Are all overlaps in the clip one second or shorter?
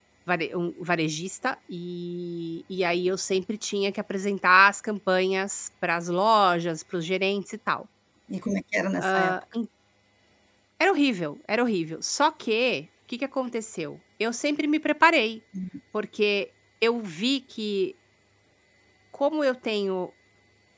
Yes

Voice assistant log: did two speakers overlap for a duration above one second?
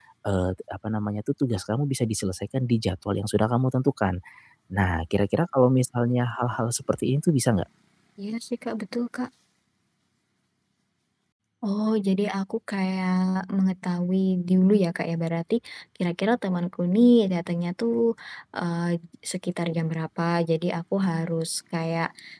No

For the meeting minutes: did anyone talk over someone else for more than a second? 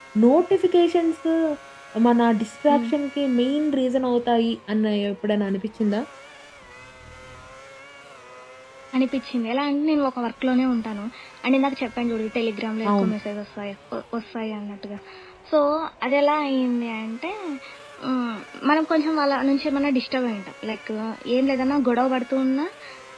No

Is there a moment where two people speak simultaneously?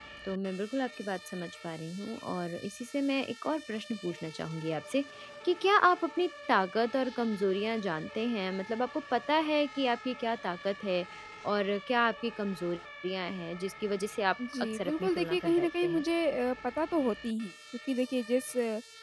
Yes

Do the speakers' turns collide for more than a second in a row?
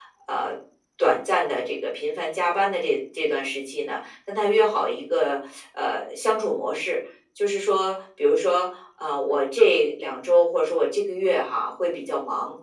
No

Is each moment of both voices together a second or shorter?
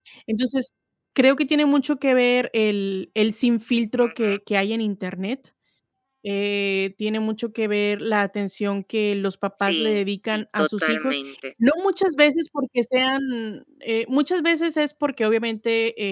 No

